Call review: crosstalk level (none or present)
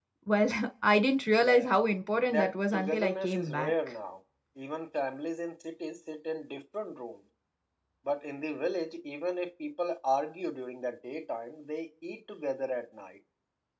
present